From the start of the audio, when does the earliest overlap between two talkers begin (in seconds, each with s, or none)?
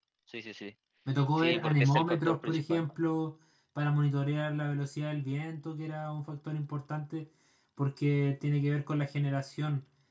1.4 s